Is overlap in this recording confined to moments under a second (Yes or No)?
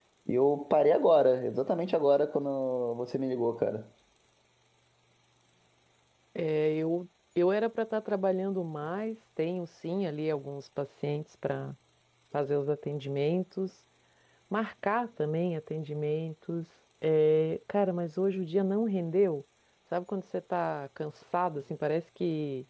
Yes